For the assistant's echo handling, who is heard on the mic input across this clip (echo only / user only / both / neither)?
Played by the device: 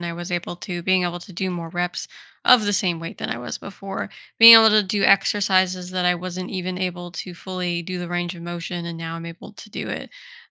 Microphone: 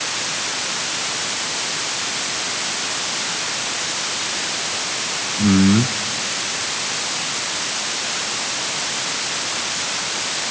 user only